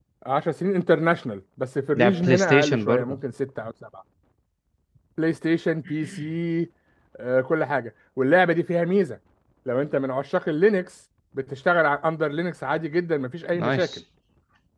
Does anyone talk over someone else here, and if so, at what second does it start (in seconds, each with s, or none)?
2.0 s